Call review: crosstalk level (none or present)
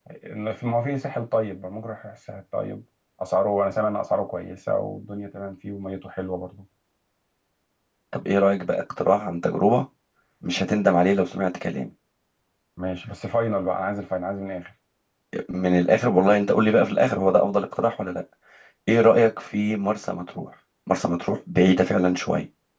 none